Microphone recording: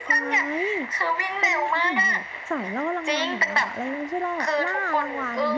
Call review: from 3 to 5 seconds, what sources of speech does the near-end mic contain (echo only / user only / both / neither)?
both